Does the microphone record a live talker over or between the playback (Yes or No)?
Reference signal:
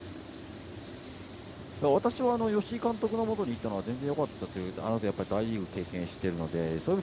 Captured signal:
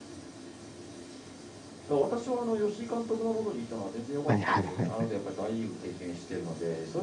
Yes